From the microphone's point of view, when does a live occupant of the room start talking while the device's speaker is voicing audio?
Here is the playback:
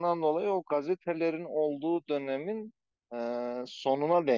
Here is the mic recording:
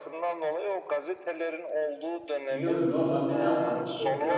2.5 s

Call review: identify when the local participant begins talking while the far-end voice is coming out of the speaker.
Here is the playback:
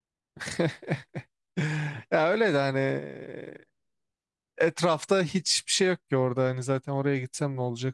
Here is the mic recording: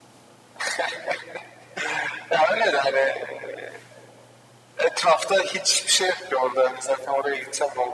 none

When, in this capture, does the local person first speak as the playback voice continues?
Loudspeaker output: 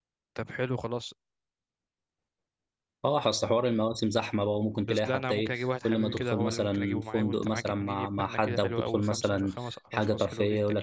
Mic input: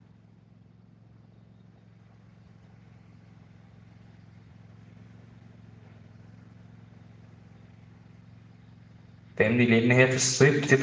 9.4 s

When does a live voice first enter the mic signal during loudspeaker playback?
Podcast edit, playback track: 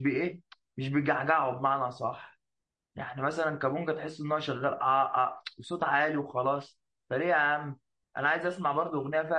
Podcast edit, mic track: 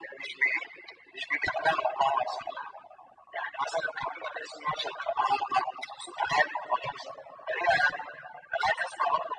none

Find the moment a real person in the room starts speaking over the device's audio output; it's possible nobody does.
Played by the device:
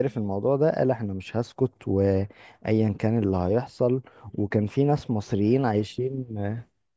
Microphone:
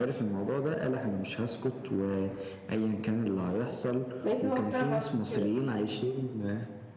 4.2 s

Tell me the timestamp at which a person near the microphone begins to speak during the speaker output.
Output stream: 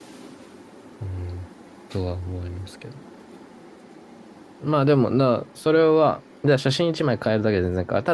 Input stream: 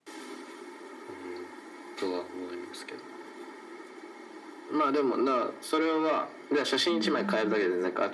6.9 s

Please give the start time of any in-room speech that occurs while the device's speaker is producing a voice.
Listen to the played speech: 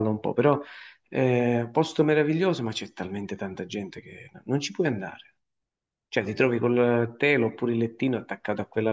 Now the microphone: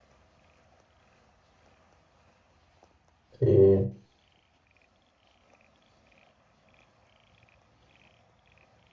3.4 s

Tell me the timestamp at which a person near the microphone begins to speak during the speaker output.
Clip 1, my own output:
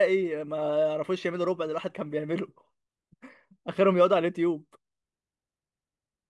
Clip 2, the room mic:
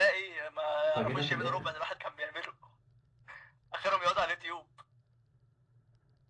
0.9 s

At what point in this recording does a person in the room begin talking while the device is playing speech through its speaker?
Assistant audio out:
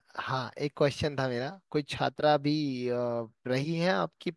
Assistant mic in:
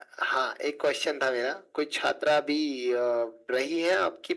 none

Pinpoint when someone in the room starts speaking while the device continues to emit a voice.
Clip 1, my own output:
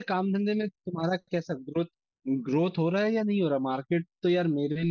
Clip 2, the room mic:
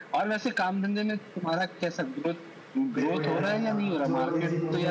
2.9 s

